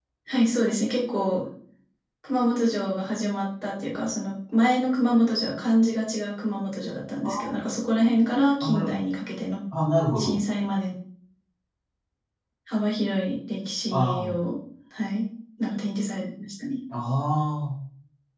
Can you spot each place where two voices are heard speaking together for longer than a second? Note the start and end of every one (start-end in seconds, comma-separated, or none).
none